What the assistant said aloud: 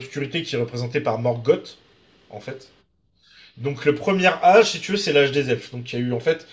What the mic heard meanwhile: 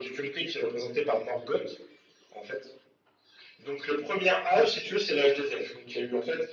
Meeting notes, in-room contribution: none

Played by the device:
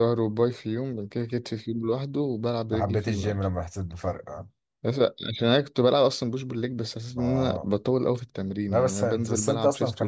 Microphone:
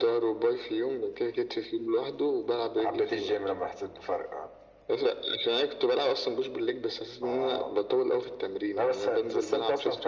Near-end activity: none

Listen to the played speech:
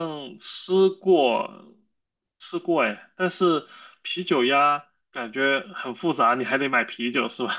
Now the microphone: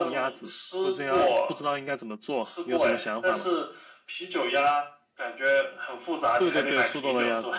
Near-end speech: present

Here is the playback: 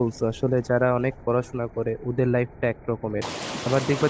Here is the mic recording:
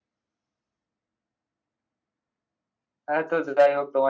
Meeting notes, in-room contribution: present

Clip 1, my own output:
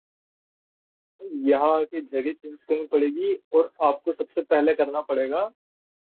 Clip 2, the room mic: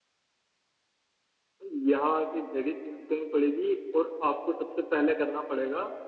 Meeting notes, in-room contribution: none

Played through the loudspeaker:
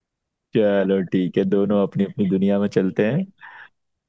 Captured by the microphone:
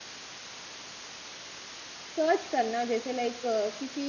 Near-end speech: present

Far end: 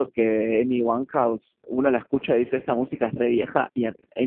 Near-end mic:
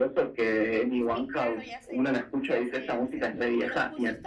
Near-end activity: present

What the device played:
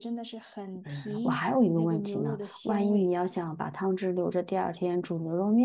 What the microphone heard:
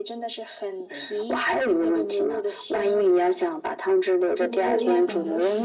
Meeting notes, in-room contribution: present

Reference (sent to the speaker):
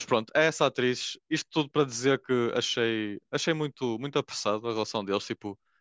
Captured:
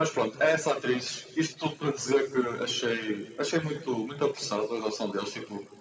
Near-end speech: none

